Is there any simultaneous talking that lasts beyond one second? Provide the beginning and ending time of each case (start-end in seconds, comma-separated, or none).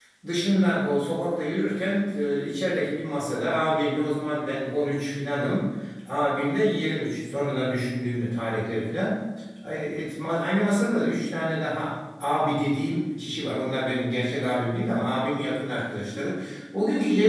none